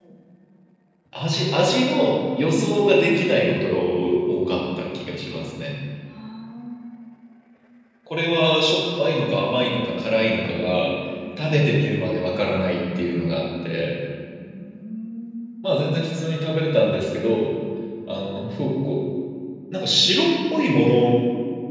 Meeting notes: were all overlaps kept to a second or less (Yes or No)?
Yes